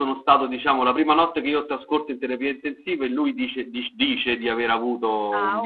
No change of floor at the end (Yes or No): No